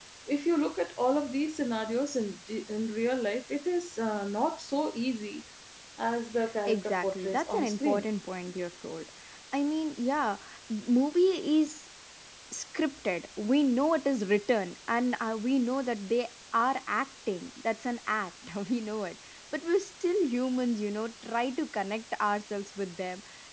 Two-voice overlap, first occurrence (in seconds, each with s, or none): 6.7 s